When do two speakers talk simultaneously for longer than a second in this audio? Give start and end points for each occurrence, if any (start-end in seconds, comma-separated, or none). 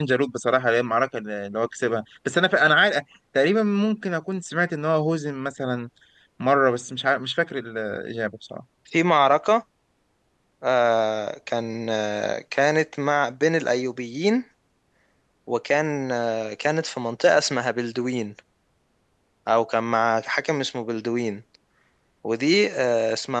none